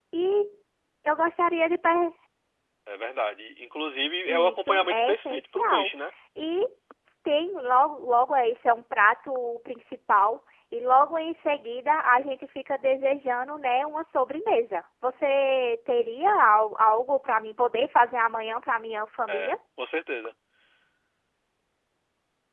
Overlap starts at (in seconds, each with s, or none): 4.3 s